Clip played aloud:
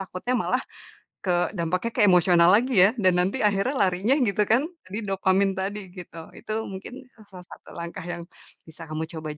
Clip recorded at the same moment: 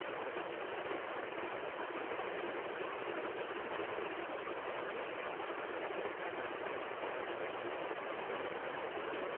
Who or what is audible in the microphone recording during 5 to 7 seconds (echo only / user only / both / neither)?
neither